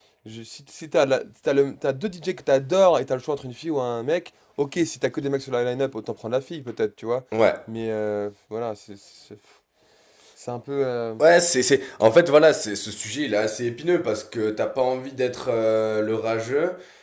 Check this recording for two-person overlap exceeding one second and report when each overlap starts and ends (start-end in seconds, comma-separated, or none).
none